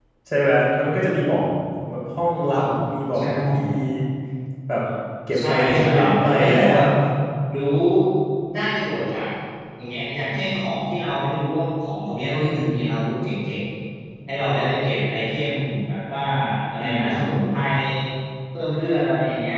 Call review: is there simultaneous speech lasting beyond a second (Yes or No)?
Yes